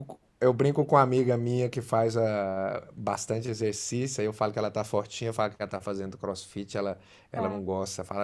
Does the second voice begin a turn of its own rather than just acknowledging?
No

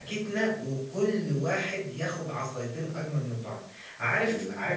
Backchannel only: Yes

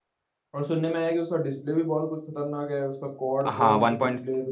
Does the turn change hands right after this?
Yes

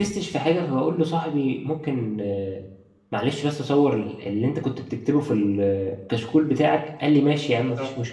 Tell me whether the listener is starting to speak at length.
No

